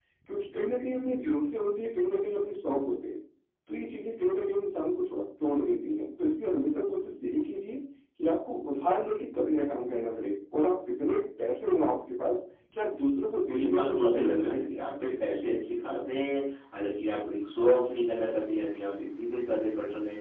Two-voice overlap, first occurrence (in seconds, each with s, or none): 13.5 s